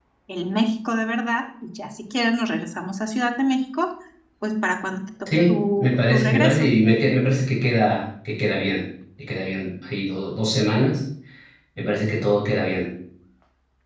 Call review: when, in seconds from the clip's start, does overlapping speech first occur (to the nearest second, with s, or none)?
5 s